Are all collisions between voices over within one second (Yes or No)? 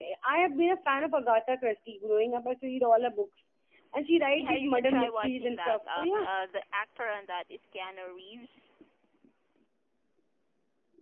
No